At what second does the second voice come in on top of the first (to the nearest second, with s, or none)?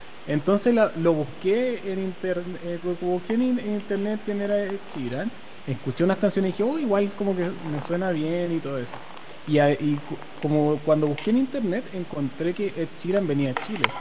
none